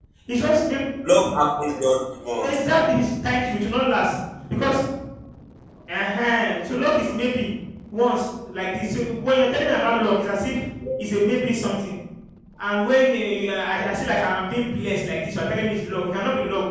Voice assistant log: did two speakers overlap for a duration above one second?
No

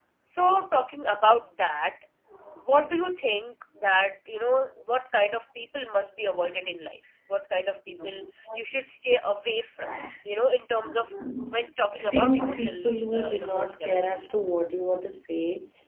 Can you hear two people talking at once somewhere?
Yes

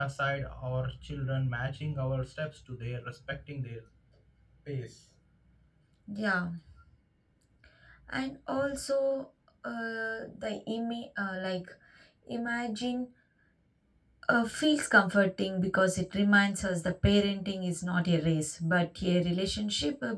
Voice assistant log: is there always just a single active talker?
Yes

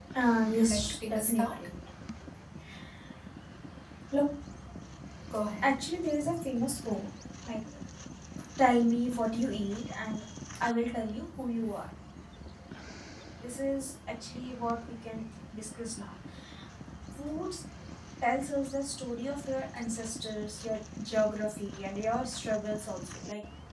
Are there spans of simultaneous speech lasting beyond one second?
Yes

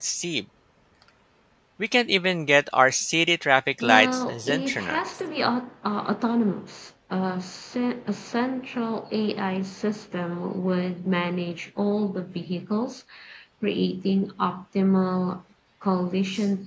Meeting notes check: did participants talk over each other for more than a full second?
Yes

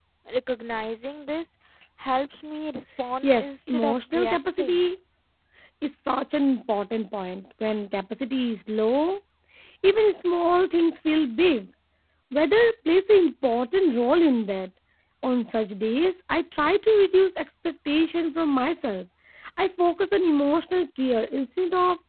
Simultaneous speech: Yes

